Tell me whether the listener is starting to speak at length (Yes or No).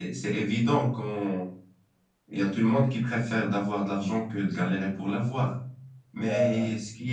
No